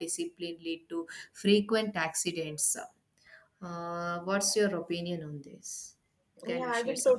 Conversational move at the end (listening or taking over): taking over